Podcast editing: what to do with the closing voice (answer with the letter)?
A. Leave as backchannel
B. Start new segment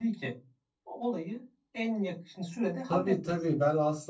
B